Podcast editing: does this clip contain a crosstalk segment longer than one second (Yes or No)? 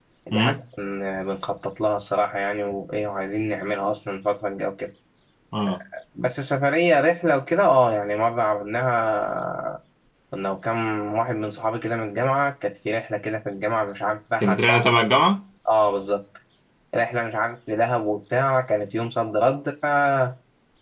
No